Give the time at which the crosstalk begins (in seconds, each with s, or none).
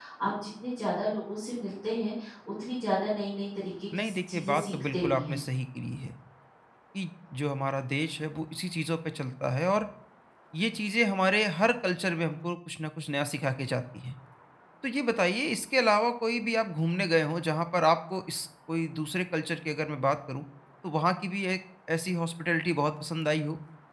3.9 s